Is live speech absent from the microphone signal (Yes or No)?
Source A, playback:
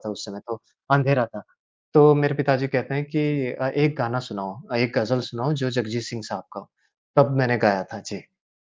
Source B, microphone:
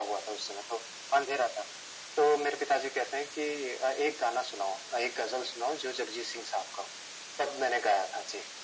Yes